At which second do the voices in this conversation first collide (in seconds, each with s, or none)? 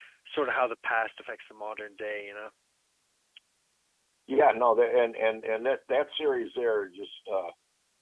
none